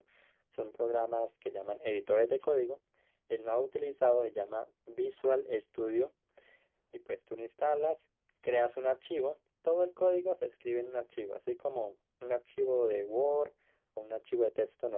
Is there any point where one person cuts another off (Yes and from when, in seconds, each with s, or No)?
No